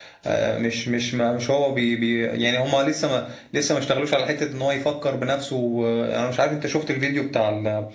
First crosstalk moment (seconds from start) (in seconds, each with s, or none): none